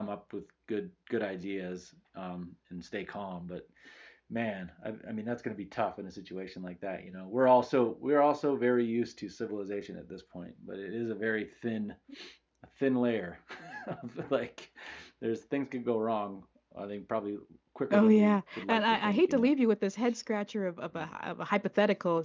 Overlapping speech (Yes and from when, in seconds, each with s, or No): Yes, from 17.9 s